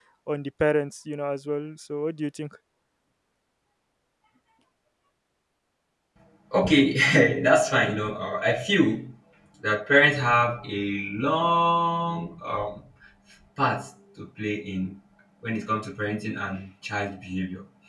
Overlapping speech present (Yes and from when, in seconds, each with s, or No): No